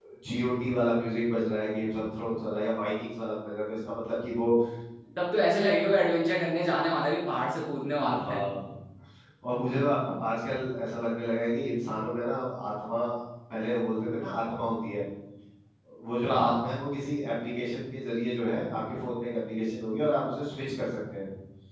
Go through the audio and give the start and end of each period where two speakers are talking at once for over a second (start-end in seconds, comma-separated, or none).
none